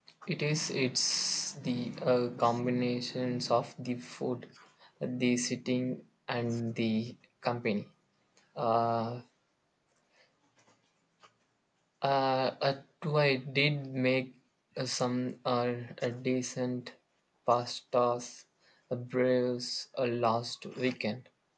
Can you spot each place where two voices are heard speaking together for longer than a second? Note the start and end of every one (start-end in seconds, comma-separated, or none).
none